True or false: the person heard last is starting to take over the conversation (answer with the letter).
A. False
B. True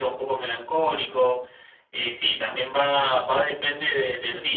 A